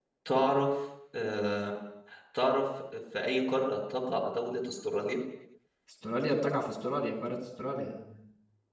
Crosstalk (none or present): none